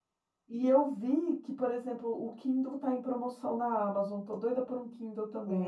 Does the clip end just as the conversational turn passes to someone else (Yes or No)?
Yes